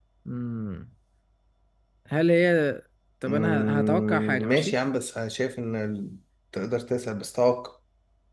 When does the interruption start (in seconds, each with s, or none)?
3.3 s